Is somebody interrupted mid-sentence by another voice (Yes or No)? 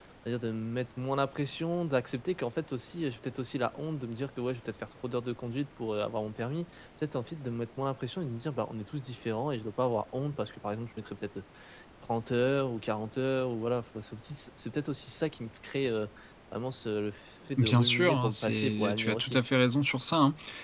Yes